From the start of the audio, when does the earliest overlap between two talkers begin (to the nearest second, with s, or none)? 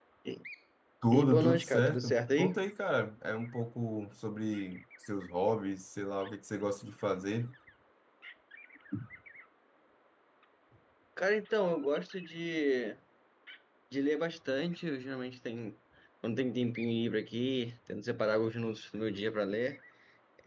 1 s